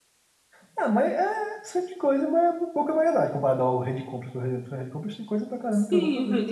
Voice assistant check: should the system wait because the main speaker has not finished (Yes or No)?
No